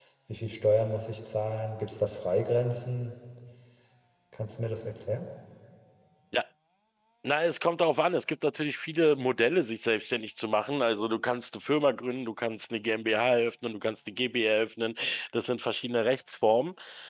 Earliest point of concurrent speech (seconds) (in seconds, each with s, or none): none